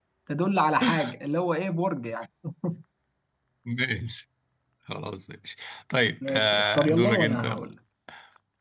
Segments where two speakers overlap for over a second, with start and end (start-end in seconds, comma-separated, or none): 6.3-7.7